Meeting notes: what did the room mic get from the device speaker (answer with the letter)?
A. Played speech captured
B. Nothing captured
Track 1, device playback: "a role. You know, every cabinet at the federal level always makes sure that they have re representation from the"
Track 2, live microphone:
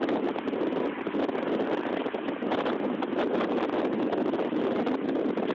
B